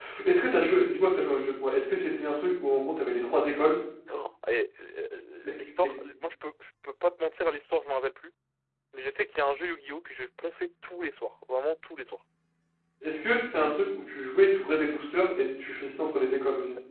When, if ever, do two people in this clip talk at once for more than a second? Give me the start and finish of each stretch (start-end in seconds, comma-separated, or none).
none